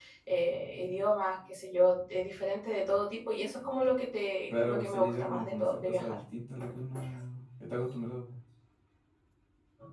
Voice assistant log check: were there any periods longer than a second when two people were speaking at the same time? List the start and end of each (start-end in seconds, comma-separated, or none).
4.6-6.2